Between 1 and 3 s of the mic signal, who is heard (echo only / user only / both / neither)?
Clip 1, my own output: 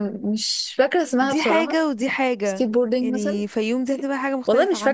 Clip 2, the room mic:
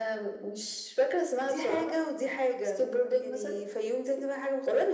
echo only